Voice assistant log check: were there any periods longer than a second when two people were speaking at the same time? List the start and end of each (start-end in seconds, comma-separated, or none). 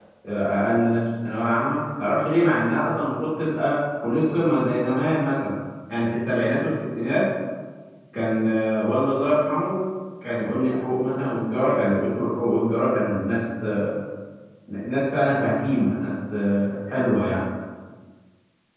none